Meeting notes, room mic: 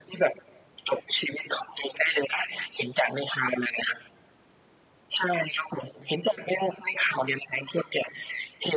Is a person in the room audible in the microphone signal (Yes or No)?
No